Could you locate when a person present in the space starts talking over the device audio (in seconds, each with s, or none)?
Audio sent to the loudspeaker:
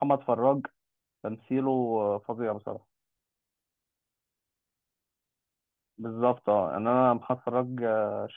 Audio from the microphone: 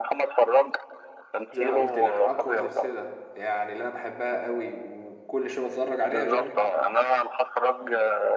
1.5 s